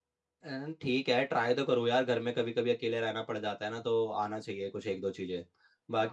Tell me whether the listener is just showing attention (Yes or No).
No